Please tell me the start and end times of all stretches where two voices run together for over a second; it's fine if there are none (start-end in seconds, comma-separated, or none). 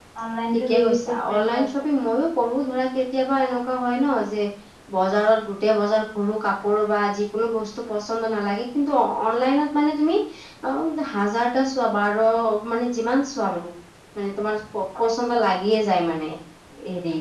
0.5-1.9